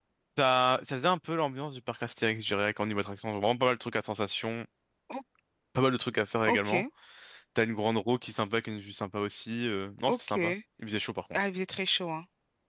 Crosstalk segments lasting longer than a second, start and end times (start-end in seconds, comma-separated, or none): none